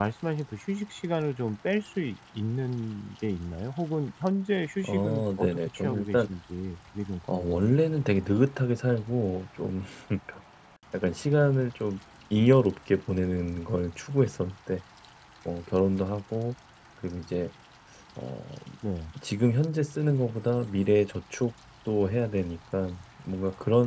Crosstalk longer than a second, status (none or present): present